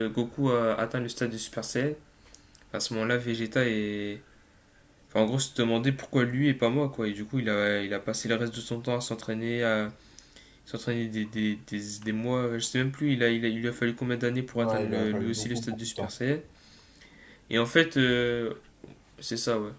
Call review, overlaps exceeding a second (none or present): present